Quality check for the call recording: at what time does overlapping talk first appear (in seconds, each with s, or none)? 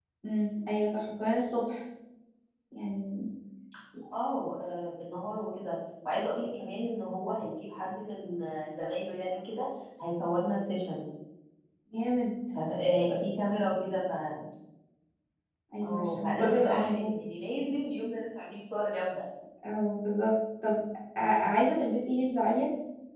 15.8 s